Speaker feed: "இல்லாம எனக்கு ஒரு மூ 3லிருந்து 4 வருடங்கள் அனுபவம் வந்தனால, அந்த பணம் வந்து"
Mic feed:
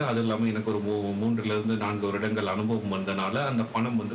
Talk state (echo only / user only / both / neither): echo only